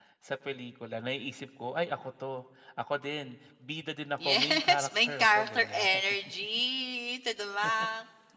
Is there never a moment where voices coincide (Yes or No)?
No